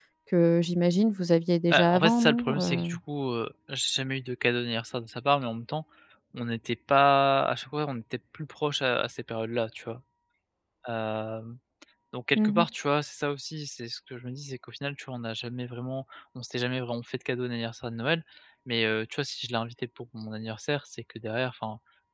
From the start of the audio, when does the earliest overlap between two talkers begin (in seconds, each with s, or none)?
1.7 s